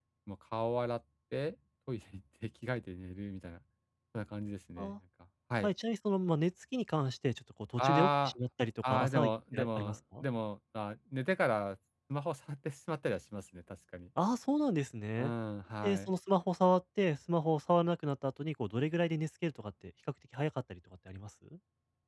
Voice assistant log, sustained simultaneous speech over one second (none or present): present